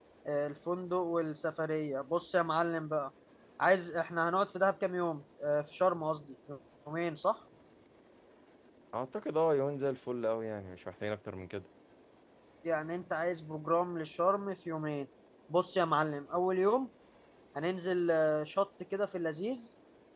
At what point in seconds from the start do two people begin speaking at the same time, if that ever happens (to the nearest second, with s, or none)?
none